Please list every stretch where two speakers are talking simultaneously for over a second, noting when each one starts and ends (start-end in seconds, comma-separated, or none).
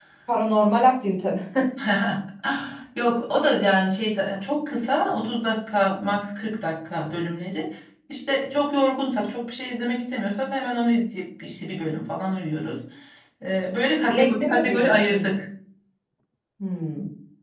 14.1-15.3